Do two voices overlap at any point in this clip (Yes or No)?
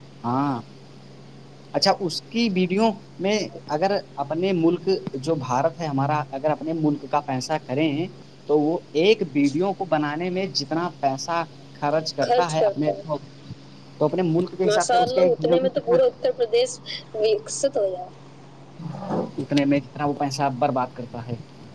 Yes